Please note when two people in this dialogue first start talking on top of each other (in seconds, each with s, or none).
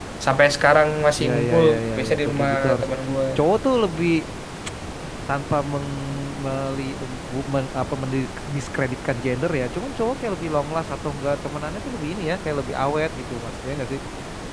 1.2 s